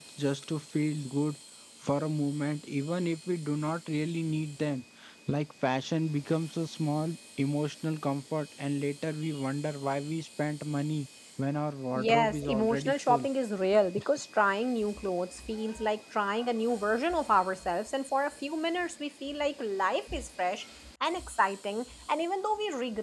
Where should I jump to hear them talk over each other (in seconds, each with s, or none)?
11.9 s